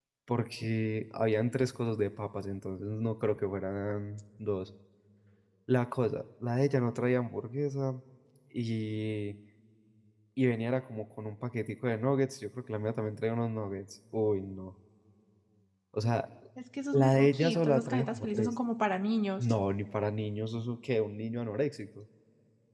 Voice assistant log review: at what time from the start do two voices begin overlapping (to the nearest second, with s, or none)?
17 s